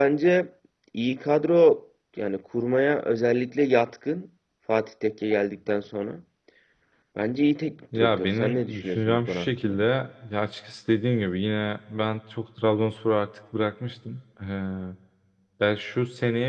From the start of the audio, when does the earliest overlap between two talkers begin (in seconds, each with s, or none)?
8.0 s